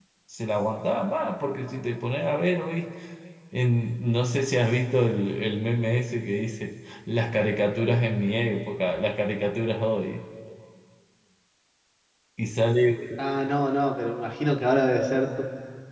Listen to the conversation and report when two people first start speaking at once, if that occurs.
none

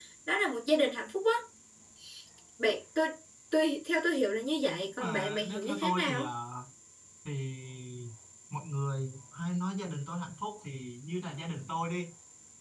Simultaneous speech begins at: 5 s

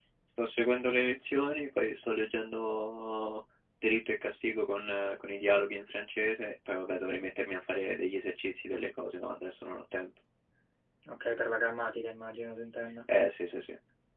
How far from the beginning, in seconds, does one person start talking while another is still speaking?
none

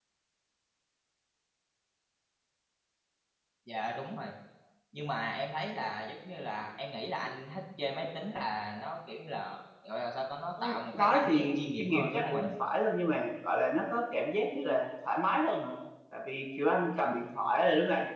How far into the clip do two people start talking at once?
11 s

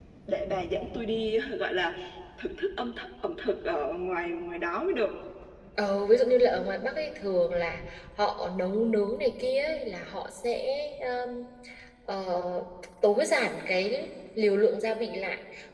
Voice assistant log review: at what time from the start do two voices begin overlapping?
none

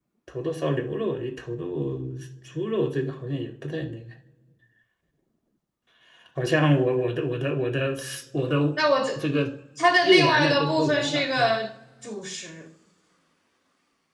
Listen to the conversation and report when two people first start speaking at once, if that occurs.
10 s

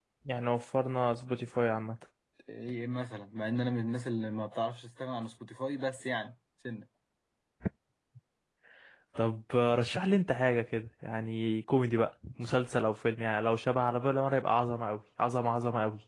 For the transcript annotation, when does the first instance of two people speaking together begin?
none

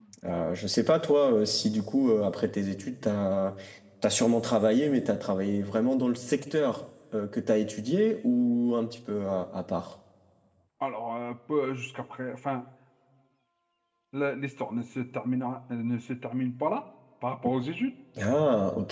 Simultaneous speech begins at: none

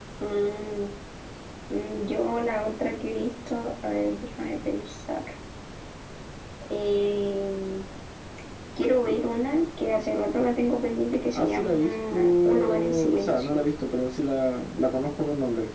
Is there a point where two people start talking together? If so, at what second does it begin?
11 s

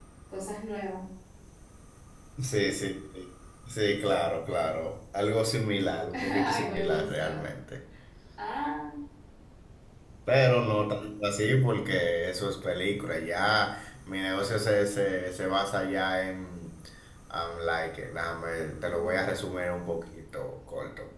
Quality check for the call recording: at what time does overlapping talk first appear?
6 s

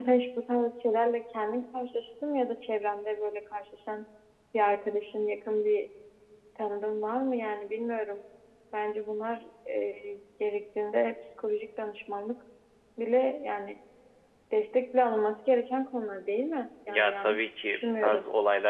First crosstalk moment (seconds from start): 17 s

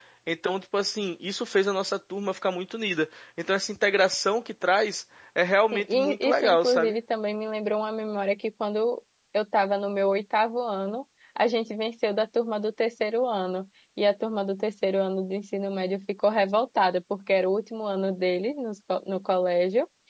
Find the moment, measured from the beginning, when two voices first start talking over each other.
6 s

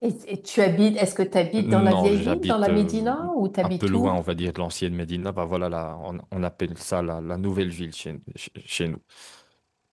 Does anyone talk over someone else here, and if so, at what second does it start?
2 s

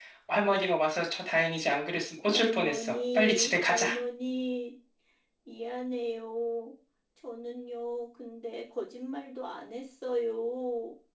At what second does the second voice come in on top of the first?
2 s

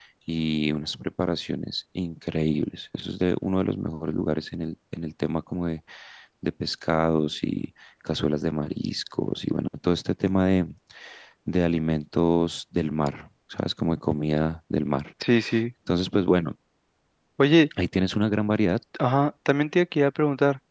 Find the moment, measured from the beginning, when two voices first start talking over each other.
none

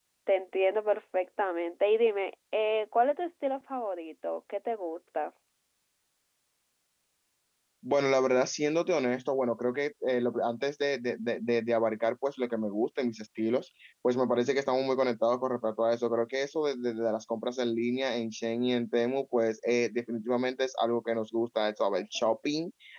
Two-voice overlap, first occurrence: none

